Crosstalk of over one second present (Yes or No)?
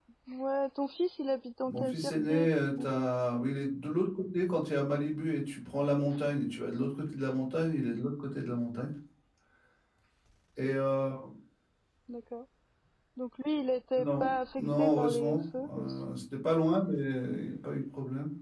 Yes